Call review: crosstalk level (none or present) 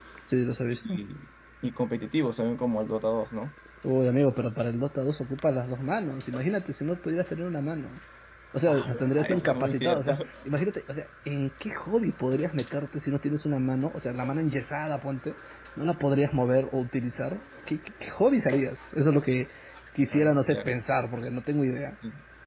present